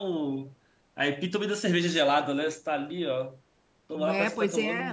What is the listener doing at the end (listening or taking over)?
taking over